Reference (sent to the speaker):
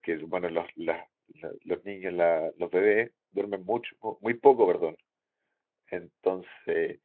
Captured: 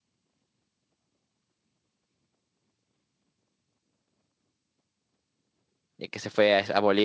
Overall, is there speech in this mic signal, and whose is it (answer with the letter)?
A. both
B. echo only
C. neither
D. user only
D